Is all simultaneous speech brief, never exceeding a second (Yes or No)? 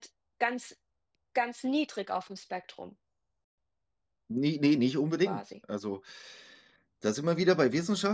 Yes